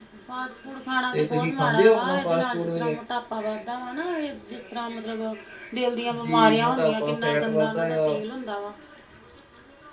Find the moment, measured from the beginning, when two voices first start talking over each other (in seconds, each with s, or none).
1.1 s